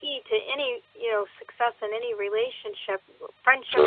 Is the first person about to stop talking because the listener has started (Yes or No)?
No